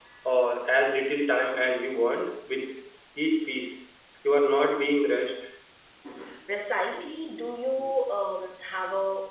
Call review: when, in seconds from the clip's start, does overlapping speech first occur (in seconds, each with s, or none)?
none